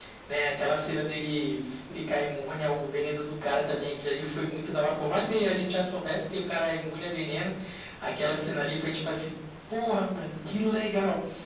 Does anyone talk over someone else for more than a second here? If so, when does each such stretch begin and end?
none

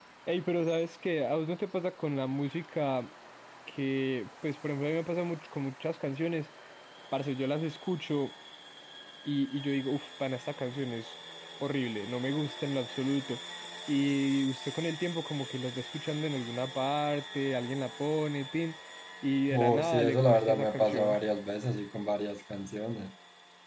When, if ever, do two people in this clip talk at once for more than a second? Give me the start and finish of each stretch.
19.5-21.2

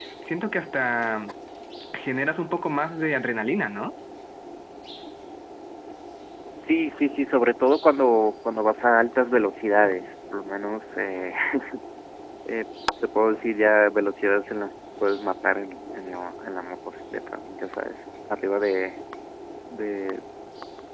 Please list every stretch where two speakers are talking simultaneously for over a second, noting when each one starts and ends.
none

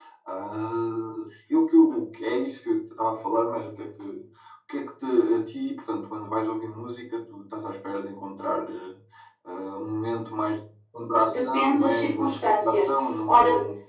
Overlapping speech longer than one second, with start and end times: 11.4-12.9

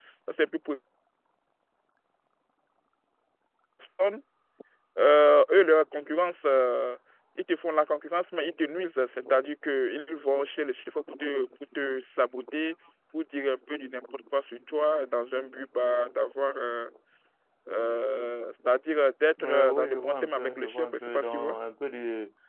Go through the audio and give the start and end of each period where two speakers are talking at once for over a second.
19.4-21.6

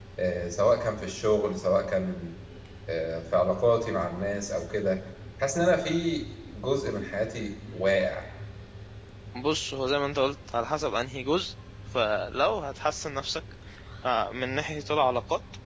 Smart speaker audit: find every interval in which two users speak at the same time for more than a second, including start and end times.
none

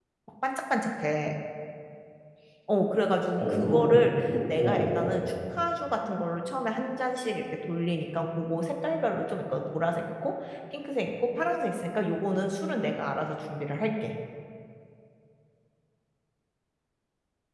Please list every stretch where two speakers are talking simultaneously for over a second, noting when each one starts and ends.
3.4-5.2

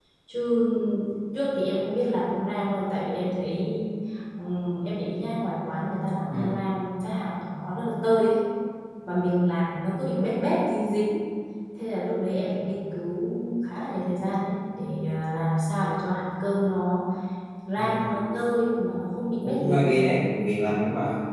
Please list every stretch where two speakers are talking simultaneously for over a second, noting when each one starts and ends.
none

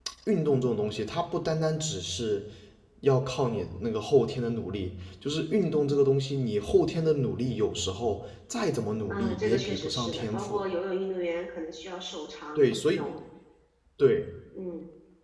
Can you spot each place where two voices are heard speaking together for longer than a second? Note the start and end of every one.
9.1-10.6

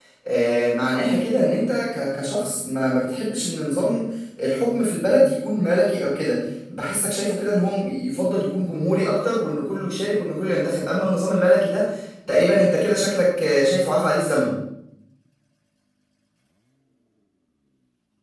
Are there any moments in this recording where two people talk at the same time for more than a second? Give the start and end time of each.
none

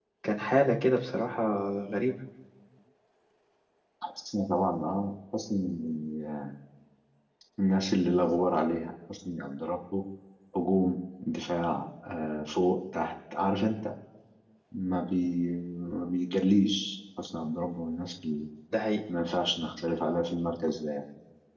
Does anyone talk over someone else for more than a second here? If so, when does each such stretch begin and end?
none

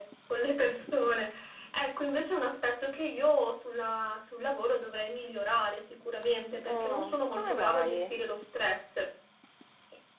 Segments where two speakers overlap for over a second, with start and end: 6.7-8.1

